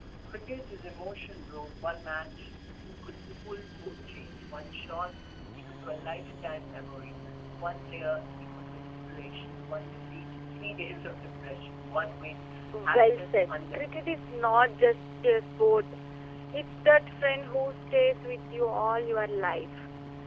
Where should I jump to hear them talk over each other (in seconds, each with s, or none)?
12.7 s